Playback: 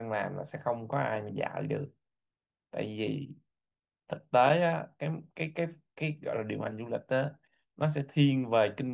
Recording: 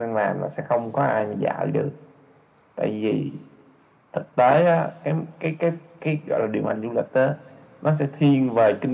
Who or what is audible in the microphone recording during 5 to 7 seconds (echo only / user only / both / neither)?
echo only